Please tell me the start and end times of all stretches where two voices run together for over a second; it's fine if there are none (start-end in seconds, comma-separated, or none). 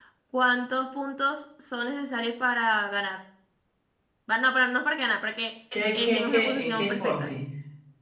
5.9-7.3